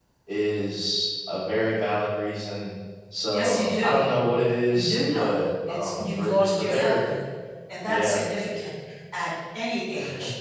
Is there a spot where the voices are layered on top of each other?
Yes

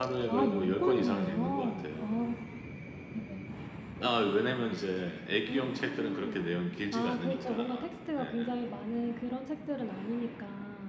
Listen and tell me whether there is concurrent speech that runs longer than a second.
Yes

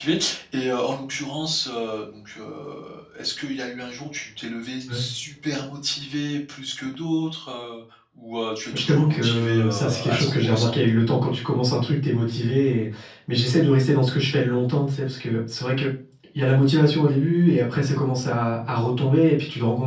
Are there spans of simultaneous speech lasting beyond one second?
Yes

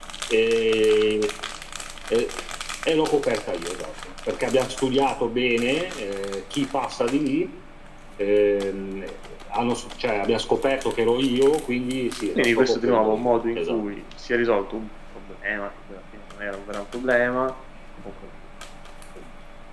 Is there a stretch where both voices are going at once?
Yes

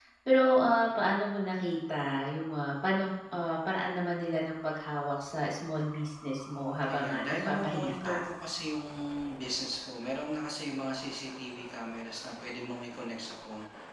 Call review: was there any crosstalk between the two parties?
Yes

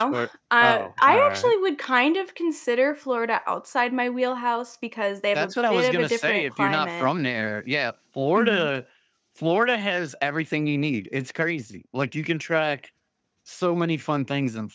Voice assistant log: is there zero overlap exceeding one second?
No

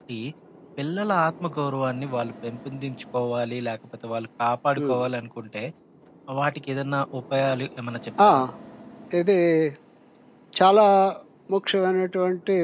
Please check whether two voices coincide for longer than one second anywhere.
No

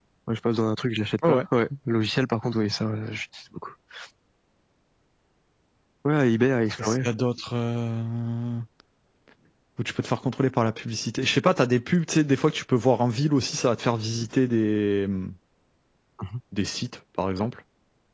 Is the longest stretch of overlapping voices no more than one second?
Yes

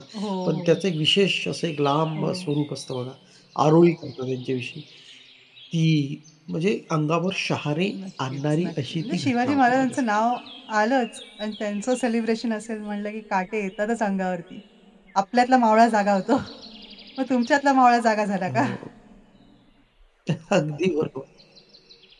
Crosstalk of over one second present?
Yes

